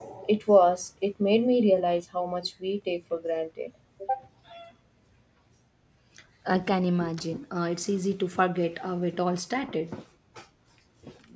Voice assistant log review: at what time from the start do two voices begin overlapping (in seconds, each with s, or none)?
none